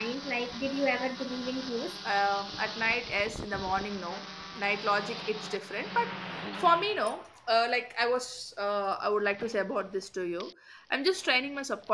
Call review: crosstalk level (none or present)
none